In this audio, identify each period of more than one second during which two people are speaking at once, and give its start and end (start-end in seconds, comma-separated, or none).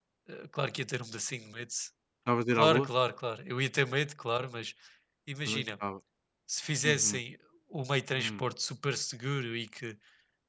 none